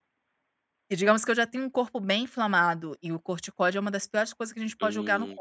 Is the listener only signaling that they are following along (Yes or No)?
No